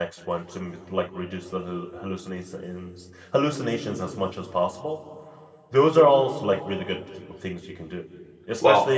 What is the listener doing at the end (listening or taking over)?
listening